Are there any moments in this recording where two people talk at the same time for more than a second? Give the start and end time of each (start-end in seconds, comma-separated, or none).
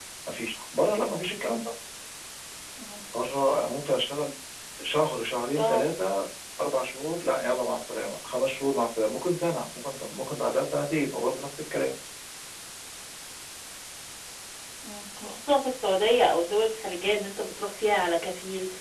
none